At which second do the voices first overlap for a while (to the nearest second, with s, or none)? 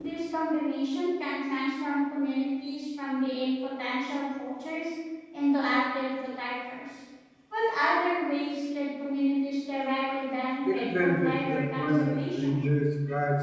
11 s